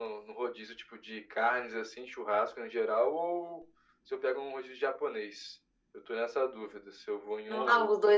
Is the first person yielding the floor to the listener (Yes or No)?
Yes